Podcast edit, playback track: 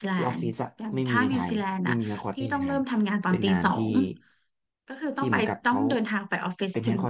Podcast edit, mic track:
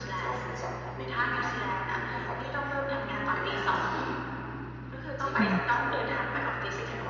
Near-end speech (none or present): present